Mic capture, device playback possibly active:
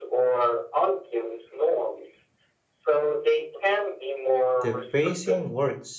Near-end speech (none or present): present